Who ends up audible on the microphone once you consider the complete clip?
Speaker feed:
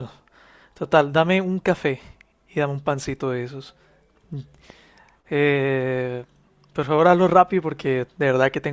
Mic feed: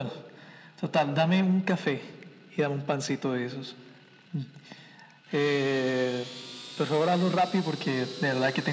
echo only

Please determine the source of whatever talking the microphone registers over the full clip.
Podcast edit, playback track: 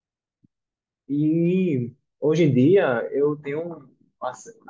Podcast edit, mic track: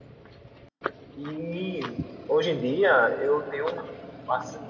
echo only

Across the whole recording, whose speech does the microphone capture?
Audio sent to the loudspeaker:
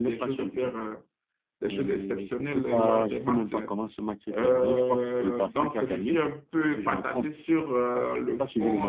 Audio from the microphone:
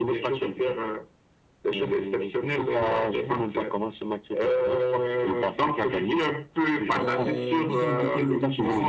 both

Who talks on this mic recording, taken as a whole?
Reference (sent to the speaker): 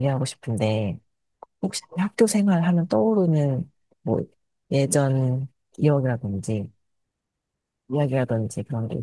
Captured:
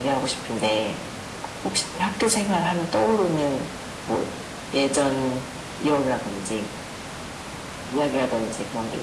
echo only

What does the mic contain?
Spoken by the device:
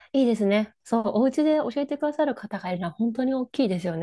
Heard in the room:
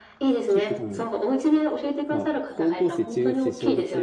both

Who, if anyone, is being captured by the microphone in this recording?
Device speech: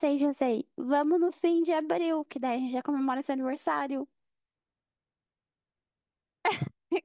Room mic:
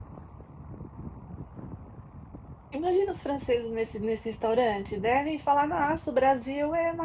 user only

